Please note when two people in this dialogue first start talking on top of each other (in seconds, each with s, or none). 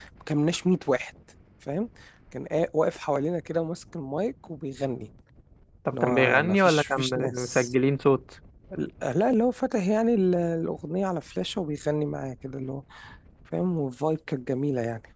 5.9 s